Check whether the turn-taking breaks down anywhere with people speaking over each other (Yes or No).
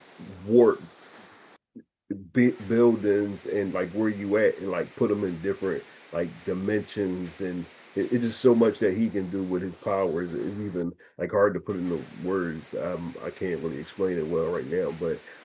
No